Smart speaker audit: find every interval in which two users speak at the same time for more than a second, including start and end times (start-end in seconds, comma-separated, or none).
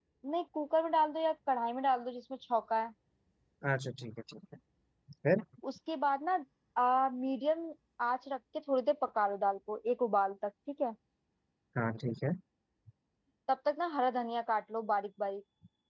none